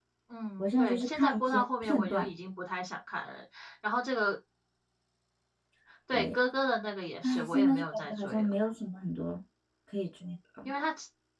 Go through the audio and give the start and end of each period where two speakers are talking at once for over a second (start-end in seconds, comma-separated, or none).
0.6-2.3, 7.2-8.5